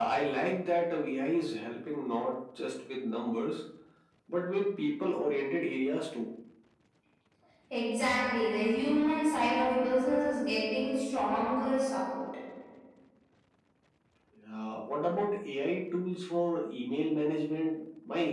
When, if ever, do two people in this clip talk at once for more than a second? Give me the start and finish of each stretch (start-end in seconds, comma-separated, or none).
none